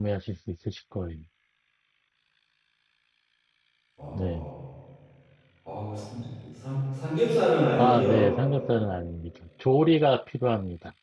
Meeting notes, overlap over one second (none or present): none